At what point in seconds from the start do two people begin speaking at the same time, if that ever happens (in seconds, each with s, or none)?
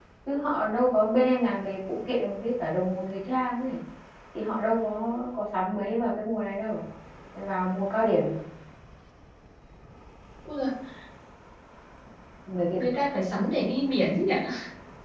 none